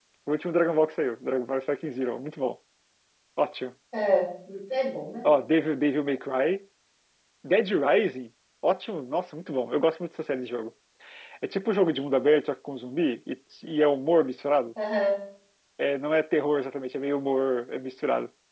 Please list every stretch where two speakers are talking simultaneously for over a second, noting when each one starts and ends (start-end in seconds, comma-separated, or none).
none